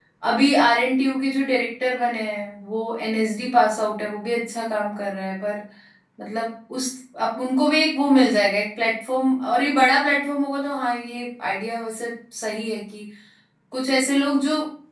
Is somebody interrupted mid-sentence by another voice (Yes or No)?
No